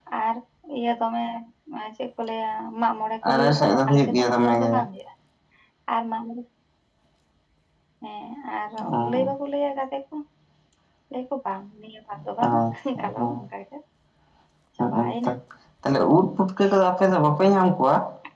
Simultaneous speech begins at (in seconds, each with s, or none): 3.3 s